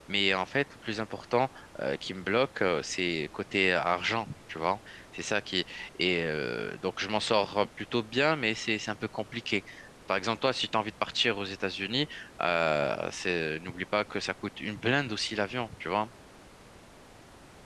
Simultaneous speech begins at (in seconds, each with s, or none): none